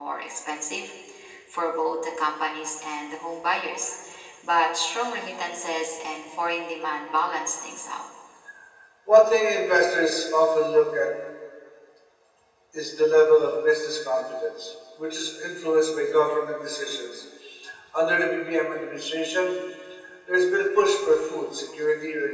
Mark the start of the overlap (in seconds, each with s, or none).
none